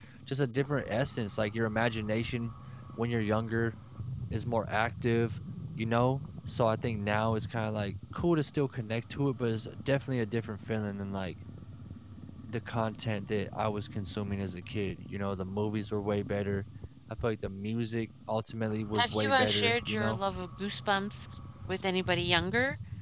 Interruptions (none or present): present